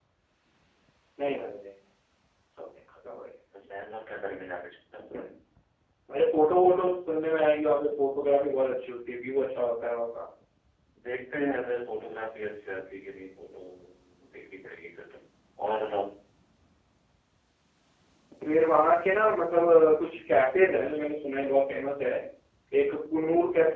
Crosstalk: none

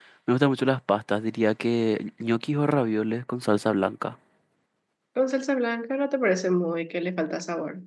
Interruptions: none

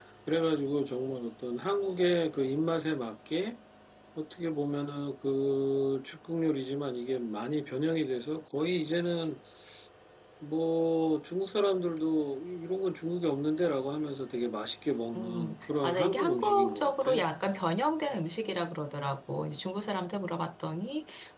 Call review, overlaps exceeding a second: present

